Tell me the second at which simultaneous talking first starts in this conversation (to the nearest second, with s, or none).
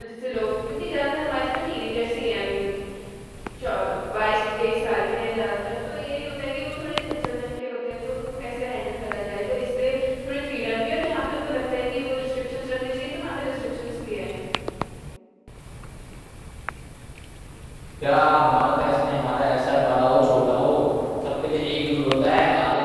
none